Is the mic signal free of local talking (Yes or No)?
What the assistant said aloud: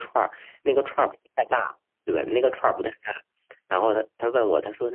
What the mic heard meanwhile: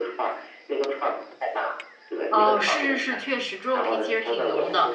No